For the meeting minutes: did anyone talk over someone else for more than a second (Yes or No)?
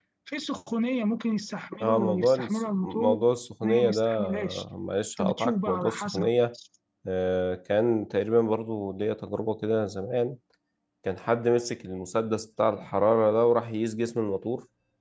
Yes